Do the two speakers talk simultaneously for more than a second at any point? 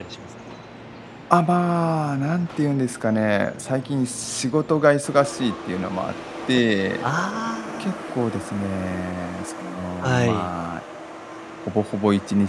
No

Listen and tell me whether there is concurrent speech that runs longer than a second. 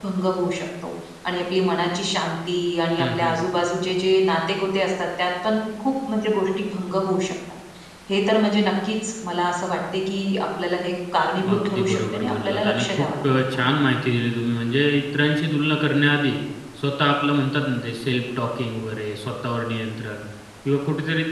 Yes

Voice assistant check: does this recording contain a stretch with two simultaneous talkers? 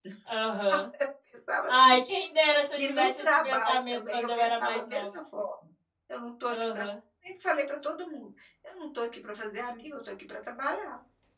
Yes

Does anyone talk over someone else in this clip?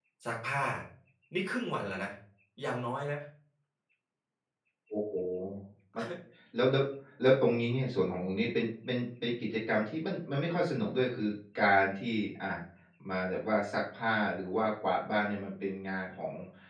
No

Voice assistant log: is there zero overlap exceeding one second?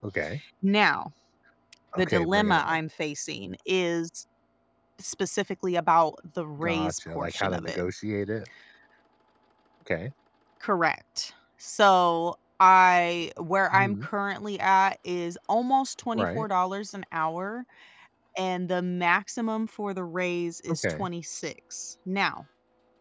No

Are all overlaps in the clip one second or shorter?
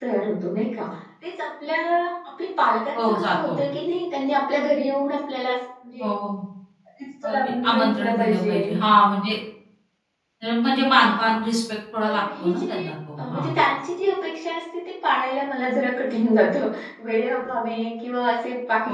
No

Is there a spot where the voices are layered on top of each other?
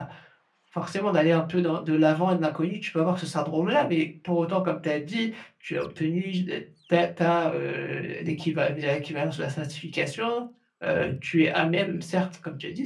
No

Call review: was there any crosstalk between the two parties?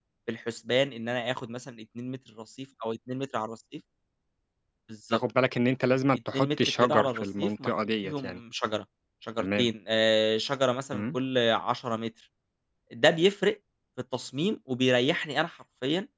Yes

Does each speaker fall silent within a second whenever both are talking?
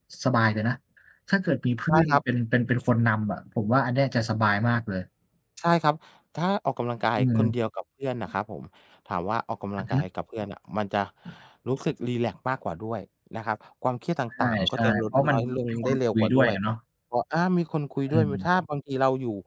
No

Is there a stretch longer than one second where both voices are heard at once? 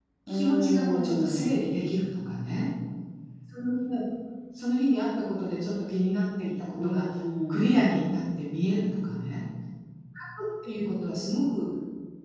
Yes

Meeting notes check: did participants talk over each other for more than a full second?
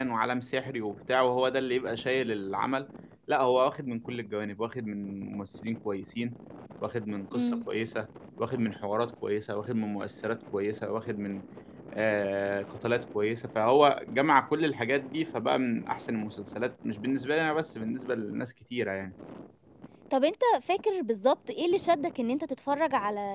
No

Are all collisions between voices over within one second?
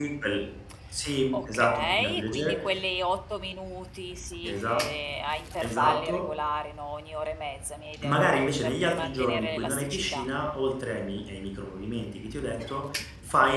No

